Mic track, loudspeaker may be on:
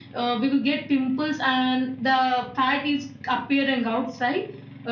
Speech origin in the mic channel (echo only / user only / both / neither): echo only